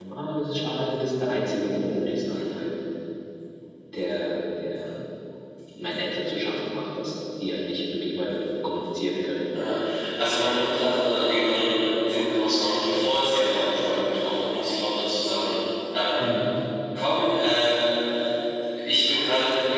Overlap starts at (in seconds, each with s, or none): none